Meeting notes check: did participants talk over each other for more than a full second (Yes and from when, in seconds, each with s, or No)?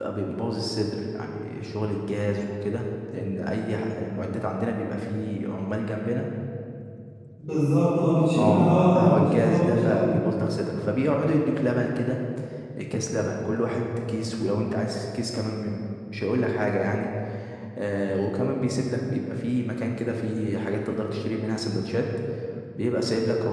Yes, from 8.3 s